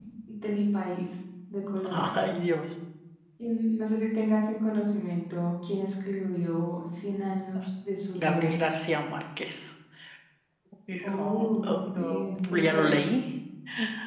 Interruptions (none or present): present